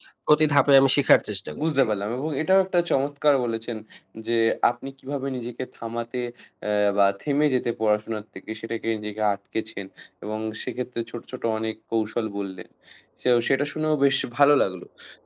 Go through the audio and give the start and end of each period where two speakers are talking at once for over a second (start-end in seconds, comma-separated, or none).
none